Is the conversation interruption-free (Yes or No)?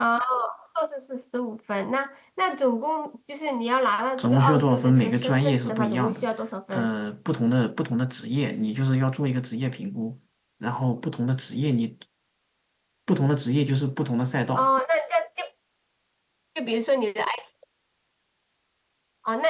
No